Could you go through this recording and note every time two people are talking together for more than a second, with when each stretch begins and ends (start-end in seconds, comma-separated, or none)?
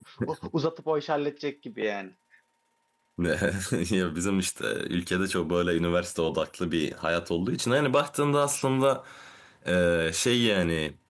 none